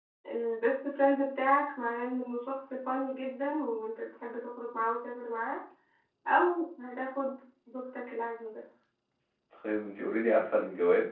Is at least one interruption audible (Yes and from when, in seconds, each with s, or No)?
No